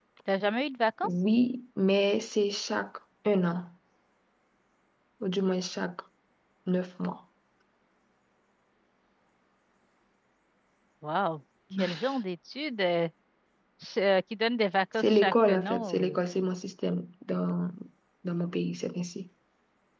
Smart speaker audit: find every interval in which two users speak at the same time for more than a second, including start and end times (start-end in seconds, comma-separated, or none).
14.9-16.2